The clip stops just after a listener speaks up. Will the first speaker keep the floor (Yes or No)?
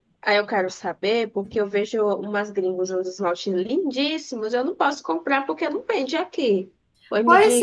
No